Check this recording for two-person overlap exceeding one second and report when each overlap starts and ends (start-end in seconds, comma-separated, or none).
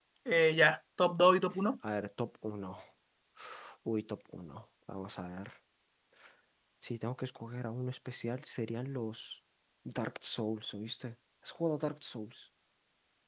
none